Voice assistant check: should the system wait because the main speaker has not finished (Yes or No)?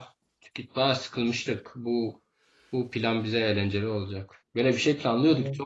Yes